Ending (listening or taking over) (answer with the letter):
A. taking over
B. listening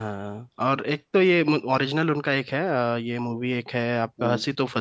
B